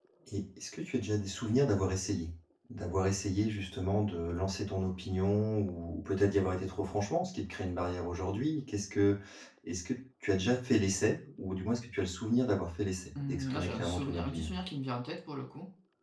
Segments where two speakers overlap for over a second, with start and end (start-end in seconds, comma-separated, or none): 13.3-14.5